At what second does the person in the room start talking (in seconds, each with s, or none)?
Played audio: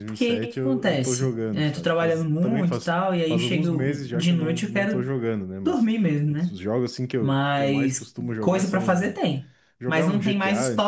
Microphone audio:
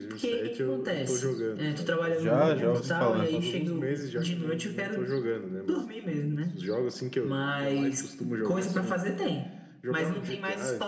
2.2 s